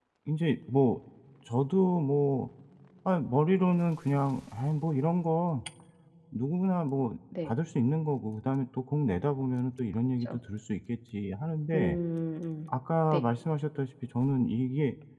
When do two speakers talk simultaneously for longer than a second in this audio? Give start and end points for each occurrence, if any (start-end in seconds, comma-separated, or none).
none